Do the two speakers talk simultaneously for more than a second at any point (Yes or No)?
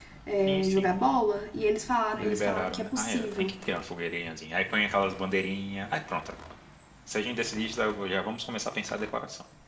Yes